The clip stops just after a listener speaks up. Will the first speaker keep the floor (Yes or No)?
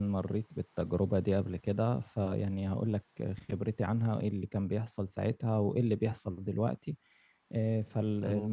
No